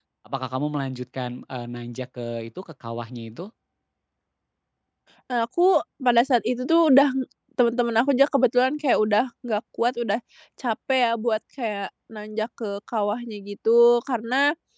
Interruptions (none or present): none